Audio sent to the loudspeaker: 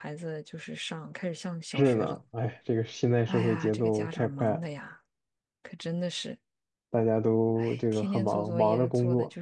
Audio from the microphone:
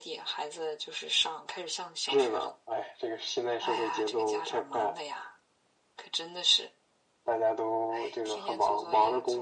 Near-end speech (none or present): none